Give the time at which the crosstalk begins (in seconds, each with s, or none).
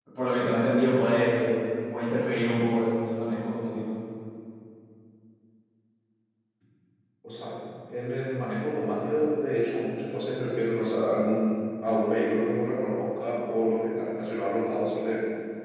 none